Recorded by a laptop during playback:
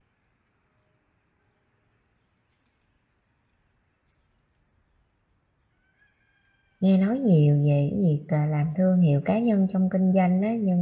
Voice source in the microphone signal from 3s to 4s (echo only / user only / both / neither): neither